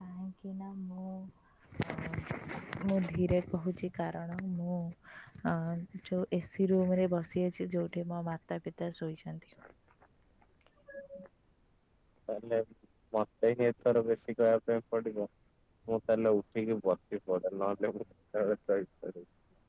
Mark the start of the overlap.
none

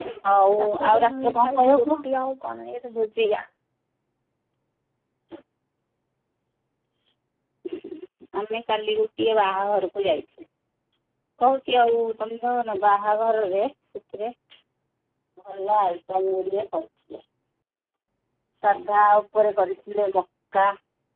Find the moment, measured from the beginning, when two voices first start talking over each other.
0.6 s

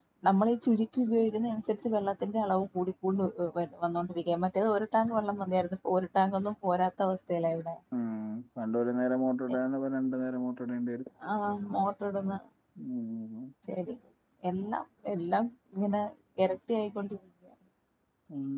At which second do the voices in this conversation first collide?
none

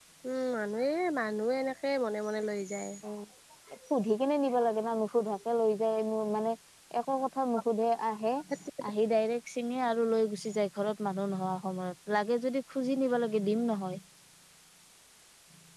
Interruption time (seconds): none

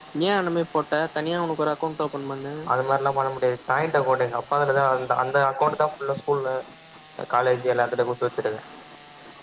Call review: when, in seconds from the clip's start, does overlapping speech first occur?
none

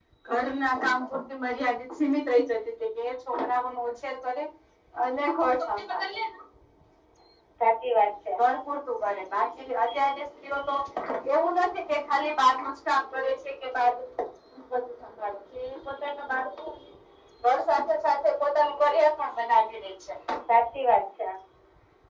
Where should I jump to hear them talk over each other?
none

